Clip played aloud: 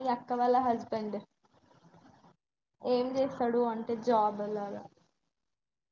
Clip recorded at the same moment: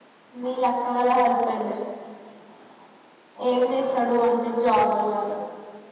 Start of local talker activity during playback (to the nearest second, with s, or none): none